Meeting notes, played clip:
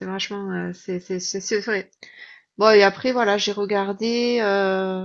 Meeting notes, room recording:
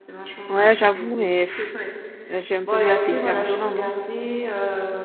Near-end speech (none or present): present